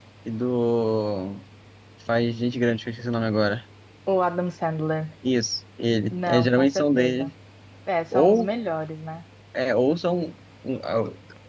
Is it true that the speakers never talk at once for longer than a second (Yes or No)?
No